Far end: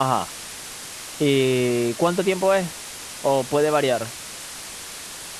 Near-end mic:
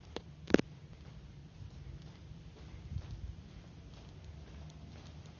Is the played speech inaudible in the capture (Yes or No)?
Yes